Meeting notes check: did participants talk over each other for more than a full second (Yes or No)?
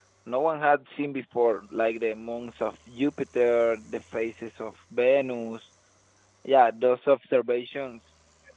No